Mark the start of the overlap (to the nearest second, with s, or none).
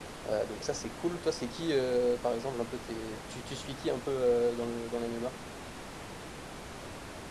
none